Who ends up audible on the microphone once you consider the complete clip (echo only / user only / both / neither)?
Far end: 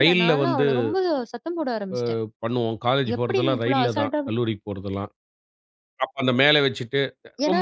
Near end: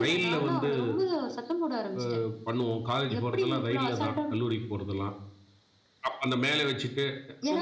echo only